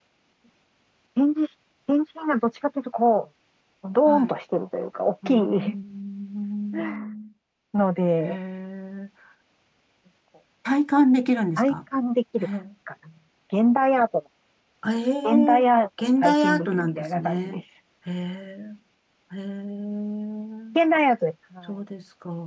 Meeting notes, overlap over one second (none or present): present